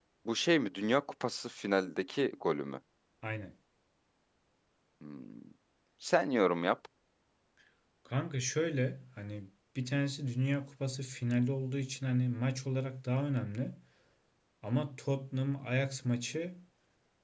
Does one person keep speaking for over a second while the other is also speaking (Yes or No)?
No